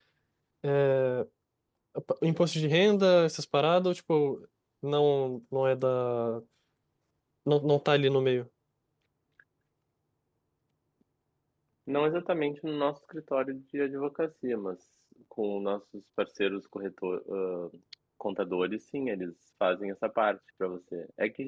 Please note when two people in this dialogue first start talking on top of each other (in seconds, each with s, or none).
none